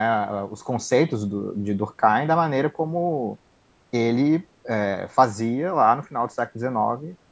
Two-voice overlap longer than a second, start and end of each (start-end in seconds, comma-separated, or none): none